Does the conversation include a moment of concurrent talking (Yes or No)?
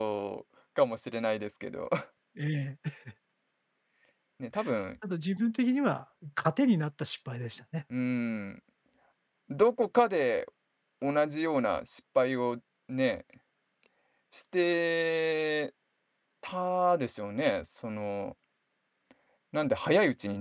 No